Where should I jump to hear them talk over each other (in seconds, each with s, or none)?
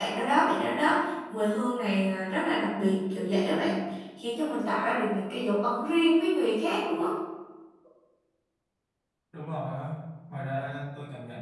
none